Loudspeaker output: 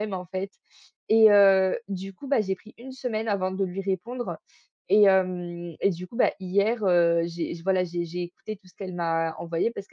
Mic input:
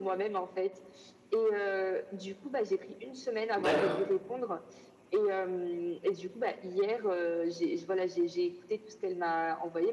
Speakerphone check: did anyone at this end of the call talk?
Yes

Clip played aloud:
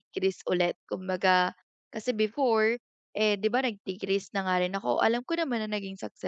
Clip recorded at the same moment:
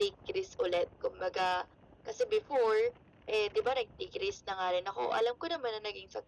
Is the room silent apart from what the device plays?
Yes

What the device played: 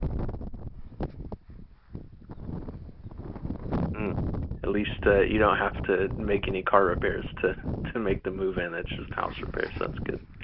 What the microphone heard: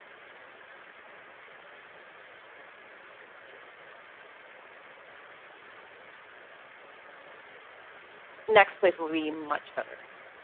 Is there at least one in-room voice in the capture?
Yes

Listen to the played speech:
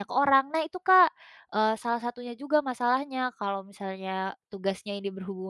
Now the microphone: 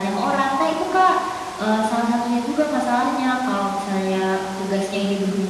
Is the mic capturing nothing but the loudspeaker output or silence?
Yes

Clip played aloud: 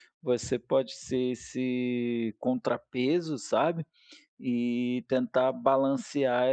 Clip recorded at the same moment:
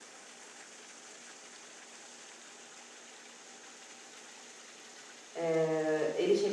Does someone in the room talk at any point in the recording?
Yes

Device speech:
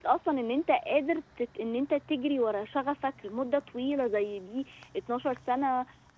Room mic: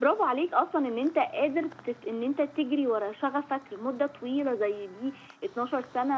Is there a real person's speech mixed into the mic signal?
No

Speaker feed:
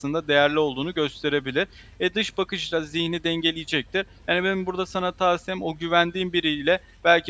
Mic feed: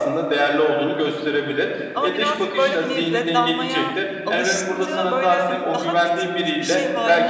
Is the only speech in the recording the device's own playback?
No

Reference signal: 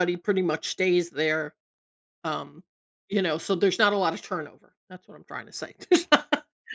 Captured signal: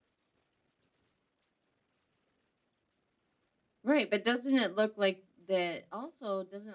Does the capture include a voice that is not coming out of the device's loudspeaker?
Yes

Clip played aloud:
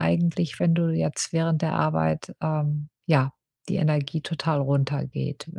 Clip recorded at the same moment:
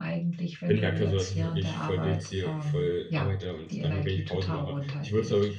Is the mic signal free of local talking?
No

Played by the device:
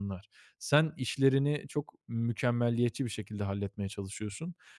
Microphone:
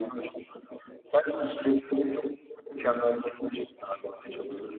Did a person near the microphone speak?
No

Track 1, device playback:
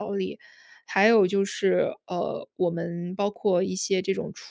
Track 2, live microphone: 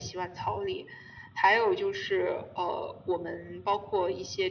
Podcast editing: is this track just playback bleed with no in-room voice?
Yes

